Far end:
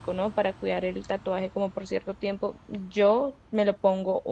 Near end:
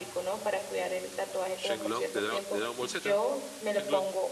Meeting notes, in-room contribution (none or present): present